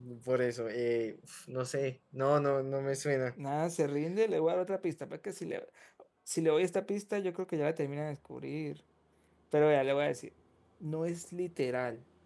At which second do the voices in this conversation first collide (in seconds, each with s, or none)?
none